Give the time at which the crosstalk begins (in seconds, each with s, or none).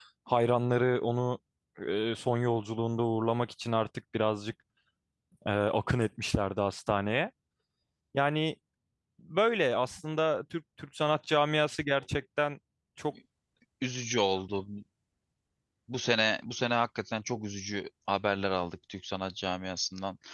none